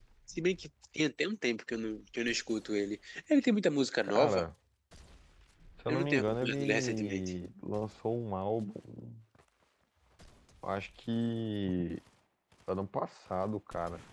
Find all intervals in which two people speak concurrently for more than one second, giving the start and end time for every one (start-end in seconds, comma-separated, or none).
5.9-7.2